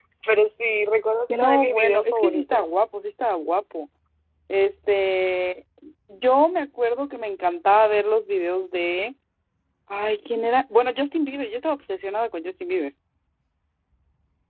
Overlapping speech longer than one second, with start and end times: 1.3-2.6

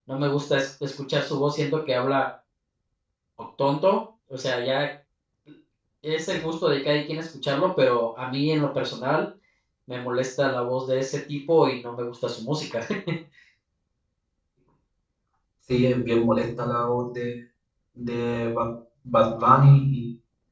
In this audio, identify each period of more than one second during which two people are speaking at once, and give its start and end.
none

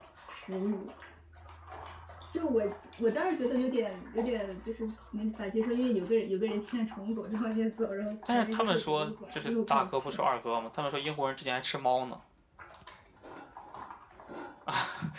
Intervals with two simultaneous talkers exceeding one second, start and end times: 8.3-10.2

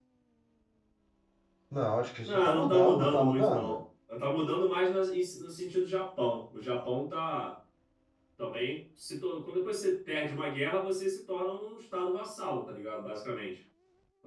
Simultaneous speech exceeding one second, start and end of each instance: 2.2-3.8

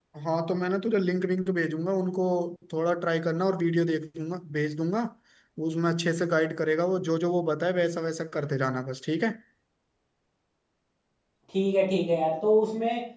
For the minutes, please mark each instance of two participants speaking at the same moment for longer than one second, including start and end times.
none

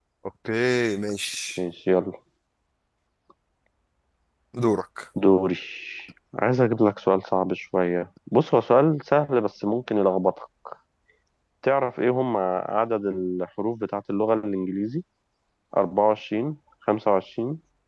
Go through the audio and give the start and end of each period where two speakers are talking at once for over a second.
none

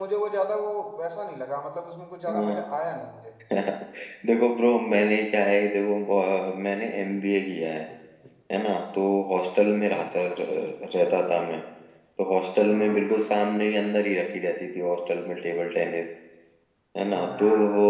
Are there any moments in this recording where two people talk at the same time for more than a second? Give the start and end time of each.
none

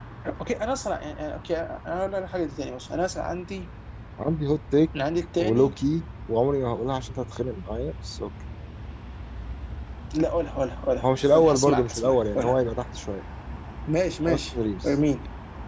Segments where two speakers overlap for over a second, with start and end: 11.0-12.6

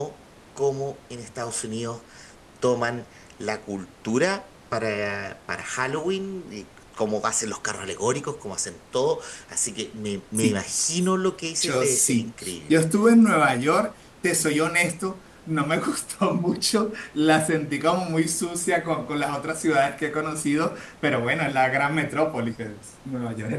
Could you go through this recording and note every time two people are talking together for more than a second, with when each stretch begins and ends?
11.6-12.8

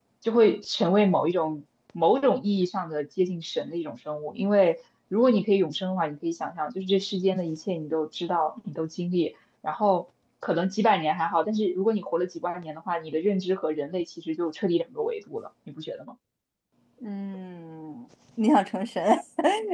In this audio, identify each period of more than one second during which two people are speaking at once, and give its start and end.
none

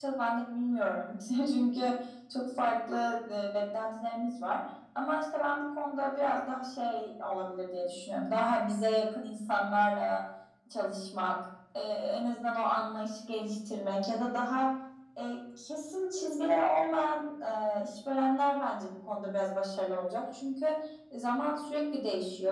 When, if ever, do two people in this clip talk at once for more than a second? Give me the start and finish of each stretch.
none

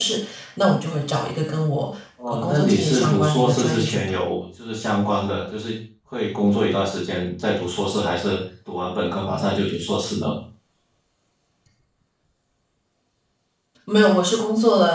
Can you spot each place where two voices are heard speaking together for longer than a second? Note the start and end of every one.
2.3-4.2

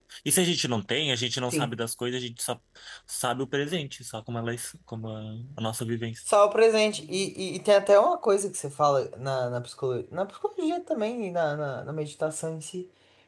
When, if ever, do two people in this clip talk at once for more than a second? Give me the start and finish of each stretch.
none

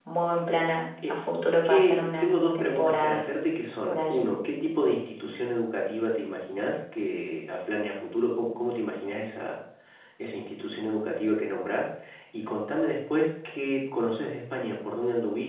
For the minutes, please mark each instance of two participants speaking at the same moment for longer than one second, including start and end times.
1.6-3.2

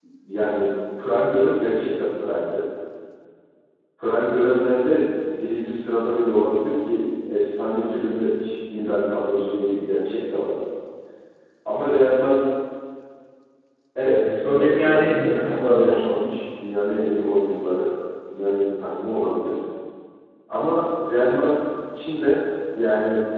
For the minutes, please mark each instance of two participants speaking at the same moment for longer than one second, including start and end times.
14.0-16.0

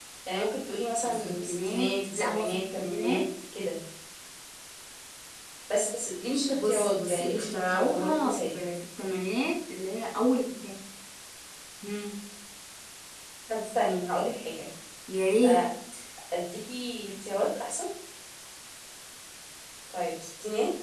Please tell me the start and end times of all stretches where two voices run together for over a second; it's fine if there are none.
1.0-3.2, 6.5-8.4

